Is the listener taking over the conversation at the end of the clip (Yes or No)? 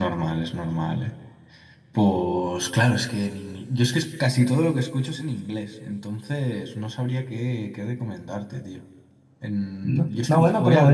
Yes